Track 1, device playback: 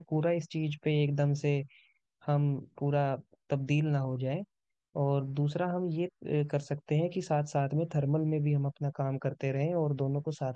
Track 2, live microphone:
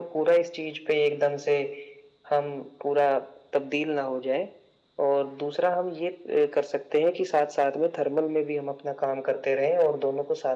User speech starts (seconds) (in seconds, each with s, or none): none